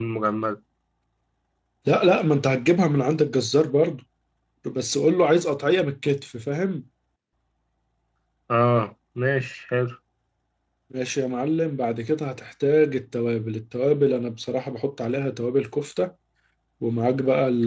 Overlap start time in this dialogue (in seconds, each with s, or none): none